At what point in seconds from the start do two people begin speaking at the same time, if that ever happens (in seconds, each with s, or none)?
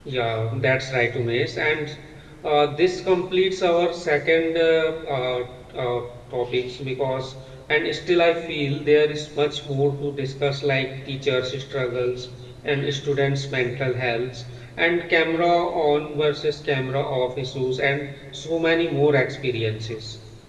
none